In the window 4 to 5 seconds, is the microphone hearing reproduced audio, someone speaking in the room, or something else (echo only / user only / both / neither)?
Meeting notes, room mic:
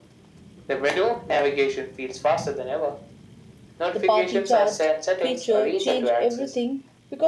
both